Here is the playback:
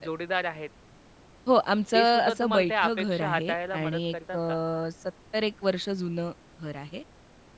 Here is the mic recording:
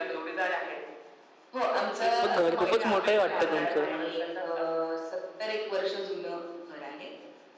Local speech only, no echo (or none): मग घर खूपच मोठं आहे वाटतं तुमचं?